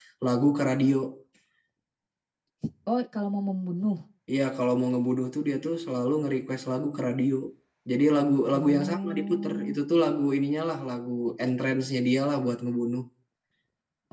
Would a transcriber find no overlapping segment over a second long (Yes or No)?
No